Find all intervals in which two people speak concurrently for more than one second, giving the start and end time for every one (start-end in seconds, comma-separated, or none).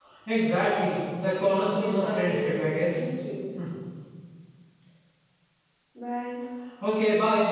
1.7-3.0